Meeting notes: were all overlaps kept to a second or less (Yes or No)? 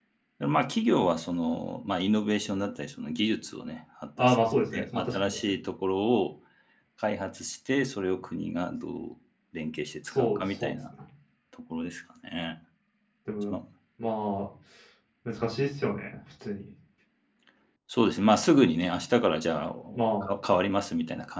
No